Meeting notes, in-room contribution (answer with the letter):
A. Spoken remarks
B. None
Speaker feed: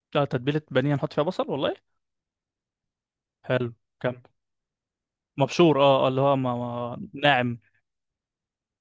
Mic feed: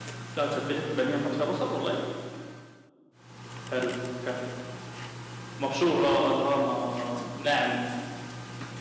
B